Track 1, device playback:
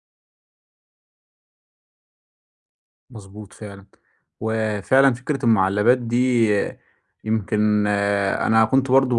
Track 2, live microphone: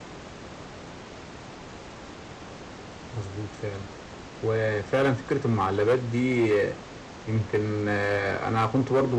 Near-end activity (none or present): none